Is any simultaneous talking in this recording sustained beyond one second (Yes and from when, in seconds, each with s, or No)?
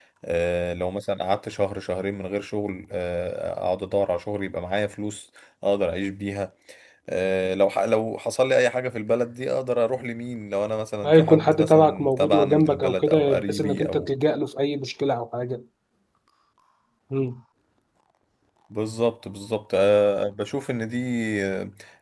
Yes, from 11.0 s